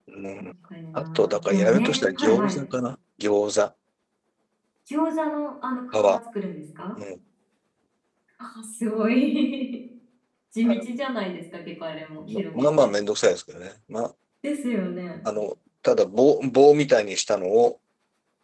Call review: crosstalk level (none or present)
present